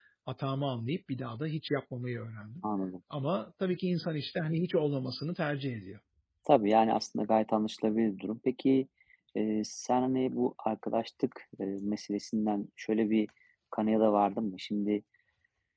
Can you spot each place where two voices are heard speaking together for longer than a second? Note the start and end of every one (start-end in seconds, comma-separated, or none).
none